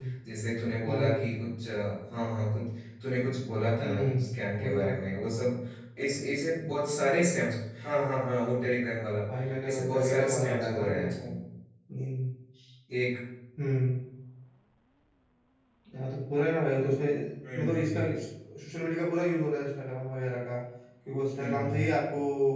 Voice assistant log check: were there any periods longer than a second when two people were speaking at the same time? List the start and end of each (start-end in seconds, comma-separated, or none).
3.8-5.0, 9.6-11.3